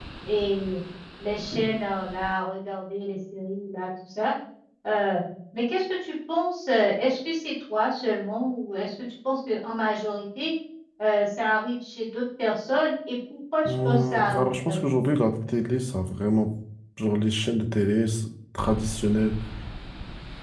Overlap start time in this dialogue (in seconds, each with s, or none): 13.7 s